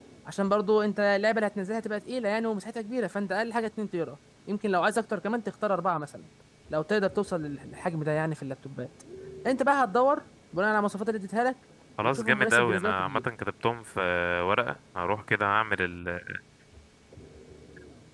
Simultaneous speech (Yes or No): Yes